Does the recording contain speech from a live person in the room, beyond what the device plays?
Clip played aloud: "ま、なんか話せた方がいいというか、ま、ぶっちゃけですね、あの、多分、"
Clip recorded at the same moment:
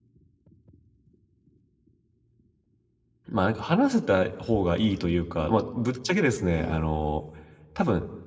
Yes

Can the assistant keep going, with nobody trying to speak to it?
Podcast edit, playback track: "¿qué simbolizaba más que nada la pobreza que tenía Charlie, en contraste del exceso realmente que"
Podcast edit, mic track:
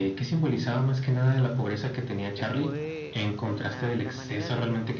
No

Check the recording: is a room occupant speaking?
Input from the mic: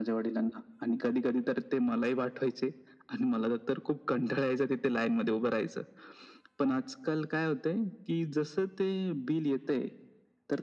No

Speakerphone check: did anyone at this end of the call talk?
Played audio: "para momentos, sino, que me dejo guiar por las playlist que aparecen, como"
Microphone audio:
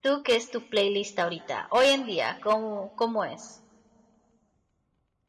Yes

